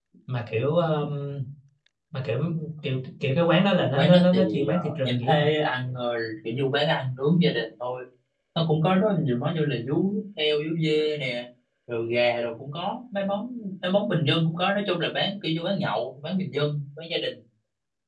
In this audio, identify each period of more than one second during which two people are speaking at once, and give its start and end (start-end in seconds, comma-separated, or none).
3.9-5.5